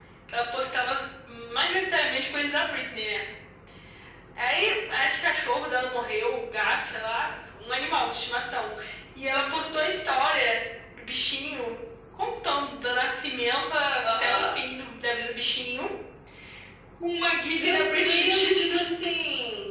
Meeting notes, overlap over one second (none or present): present